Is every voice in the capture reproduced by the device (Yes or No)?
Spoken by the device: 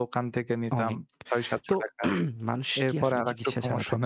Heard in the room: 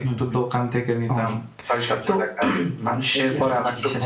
Yes